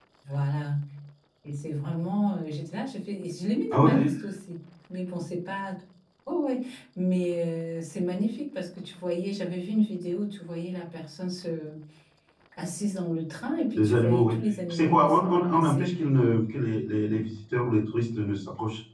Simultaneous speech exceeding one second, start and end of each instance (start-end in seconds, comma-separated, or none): 13.8-15.8